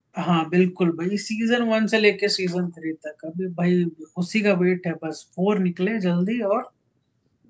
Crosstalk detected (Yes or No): No